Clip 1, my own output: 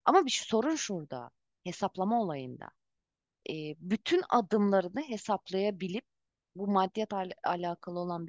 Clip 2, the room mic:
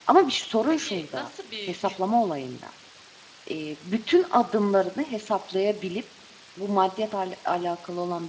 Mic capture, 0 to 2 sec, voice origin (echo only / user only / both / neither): both